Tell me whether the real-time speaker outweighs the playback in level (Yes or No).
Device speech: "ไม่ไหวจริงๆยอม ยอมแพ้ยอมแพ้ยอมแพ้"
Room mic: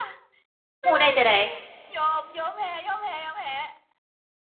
Yes